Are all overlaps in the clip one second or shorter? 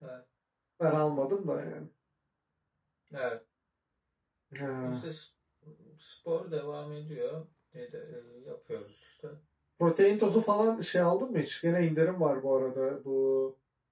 Yes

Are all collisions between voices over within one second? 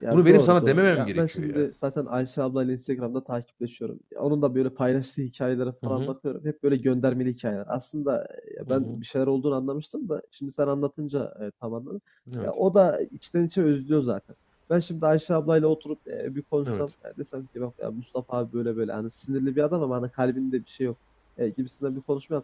No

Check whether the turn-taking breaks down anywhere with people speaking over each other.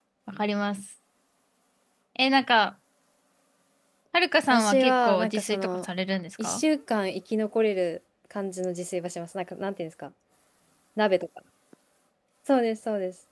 Yes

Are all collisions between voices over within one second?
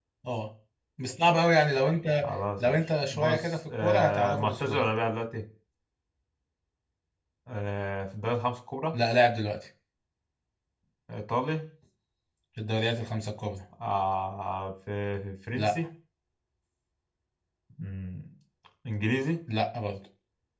No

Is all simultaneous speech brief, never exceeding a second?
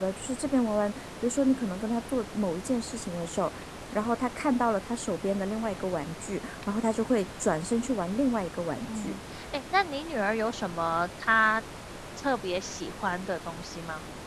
Yes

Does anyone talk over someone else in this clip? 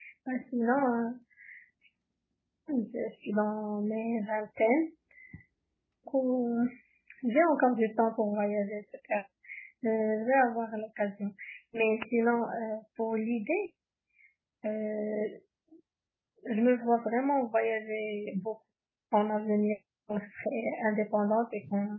No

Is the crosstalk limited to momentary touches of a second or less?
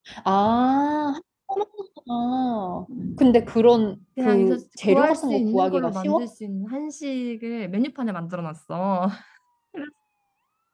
No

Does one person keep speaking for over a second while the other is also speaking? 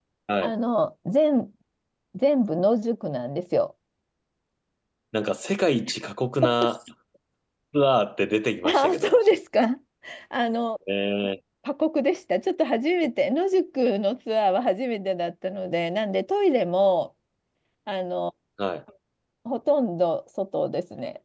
No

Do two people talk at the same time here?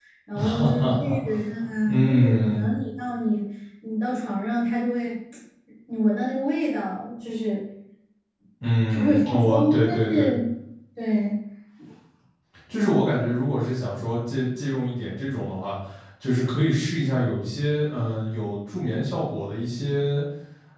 Yes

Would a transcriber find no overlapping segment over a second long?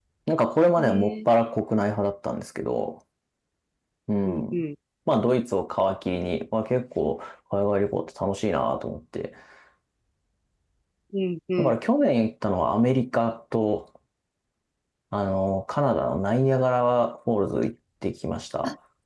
Yes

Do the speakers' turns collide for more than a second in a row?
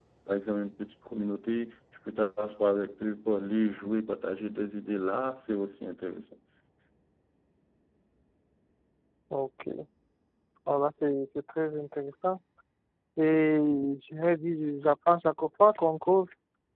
No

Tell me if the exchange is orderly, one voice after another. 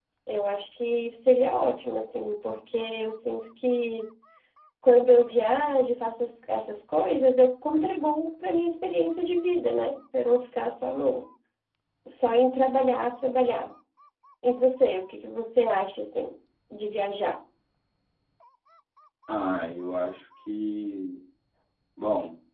Yes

